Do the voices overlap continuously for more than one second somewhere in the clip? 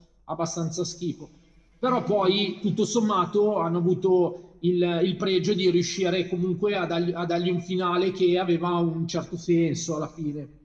No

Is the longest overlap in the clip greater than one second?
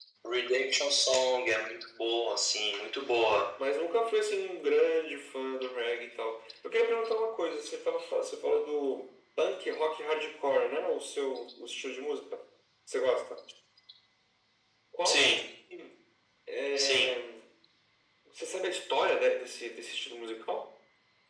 No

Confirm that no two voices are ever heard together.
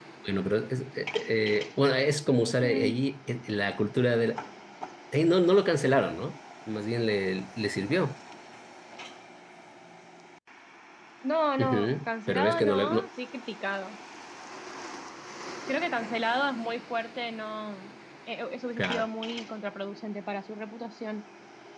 No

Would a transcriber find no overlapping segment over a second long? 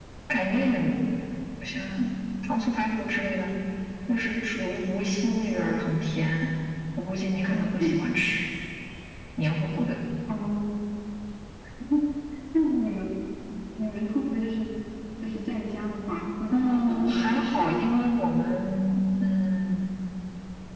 No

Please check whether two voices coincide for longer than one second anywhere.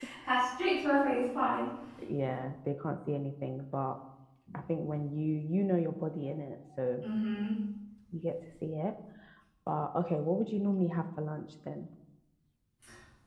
No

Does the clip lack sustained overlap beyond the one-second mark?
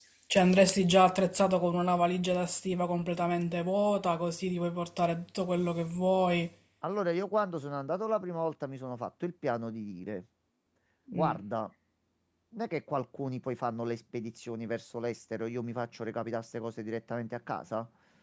Yes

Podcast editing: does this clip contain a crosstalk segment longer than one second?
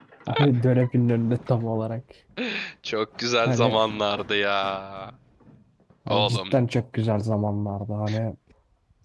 No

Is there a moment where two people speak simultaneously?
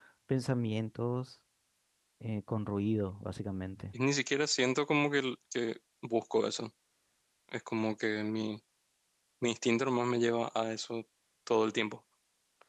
No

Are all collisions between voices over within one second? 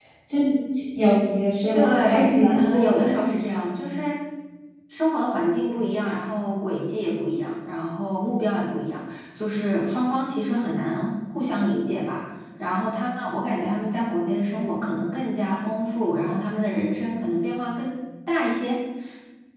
No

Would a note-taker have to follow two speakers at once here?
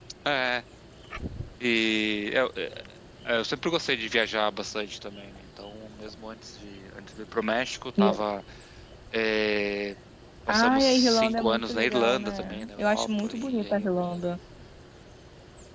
Yes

